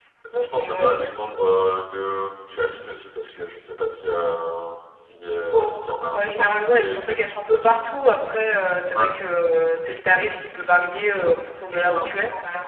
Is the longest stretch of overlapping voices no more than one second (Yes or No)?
No